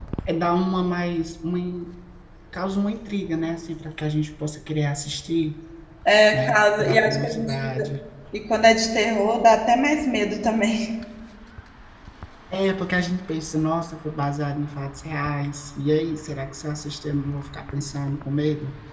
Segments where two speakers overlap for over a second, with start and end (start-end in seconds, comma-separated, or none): 6.3-7.9